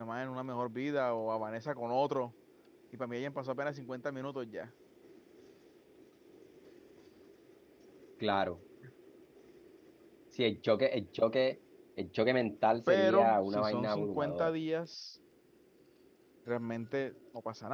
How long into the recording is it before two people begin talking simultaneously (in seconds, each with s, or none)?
12.9 s